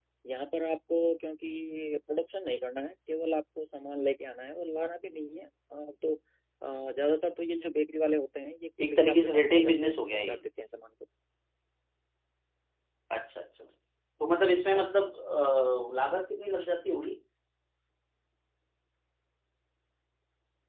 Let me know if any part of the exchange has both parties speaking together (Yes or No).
Yes